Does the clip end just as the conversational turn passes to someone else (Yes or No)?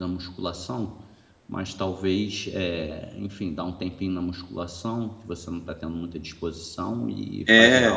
Yes